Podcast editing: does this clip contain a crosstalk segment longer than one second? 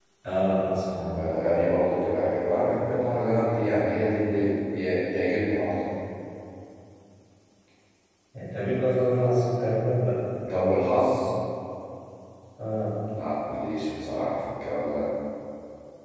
No

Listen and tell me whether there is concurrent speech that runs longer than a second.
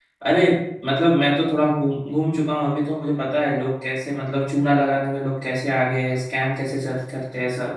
No

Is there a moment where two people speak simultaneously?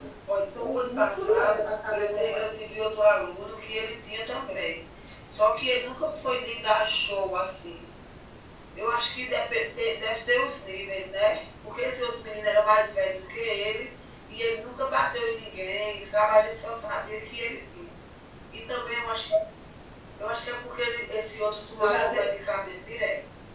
Yes, from 0.6 s

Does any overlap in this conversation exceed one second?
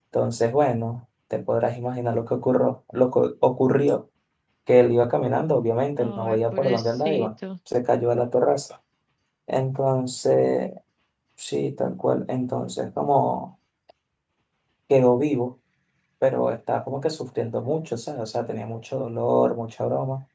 Yes, from 6.0 s

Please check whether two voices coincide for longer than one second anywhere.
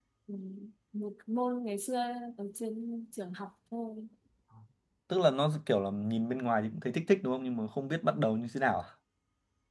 No

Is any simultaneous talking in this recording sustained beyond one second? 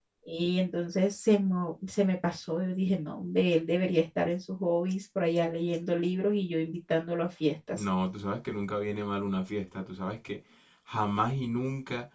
No

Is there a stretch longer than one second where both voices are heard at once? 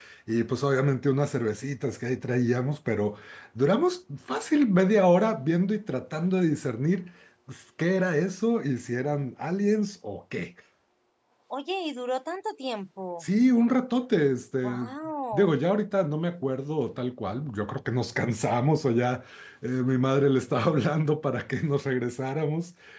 No

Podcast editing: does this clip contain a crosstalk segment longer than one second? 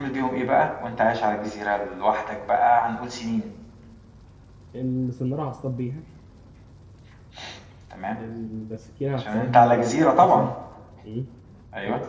Yes, from 9.2 s

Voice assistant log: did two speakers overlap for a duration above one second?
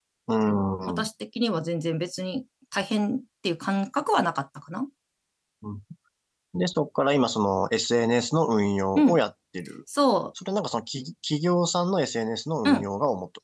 No

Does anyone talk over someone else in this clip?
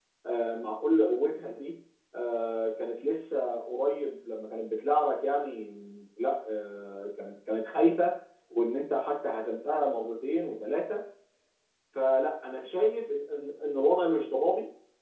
No

